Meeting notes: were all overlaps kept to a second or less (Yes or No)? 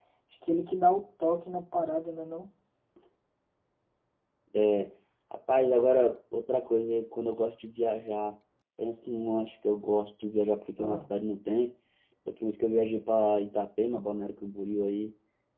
Yes